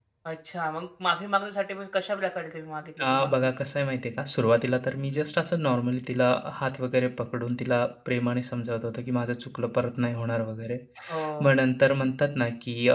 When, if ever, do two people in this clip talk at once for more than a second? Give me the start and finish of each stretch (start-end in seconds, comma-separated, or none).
none